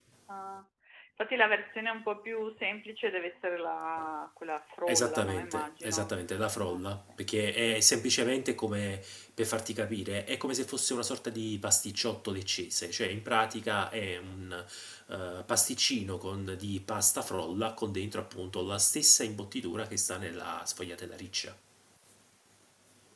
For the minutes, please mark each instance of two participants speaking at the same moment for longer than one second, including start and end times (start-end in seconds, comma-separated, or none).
4.9-6.1